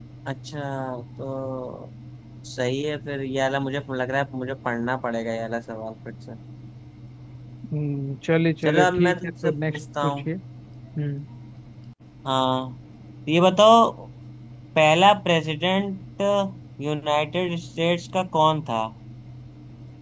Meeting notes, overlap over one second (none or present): present